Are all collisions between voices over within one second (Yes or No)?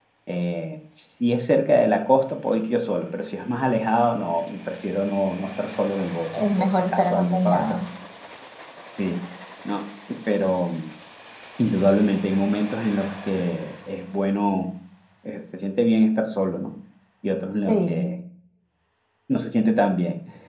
No